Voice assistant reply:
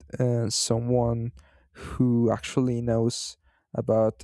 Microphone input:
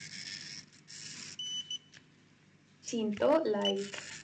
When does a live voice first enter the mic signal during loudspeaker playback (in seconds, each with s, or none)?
2.9 s